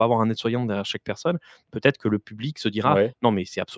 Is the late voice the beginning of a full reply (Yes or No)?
No